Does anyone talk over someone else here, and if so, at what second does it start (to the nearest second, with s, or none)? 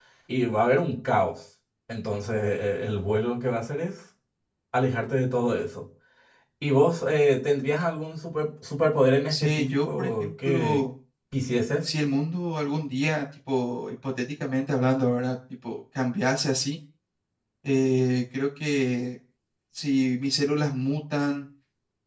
9 s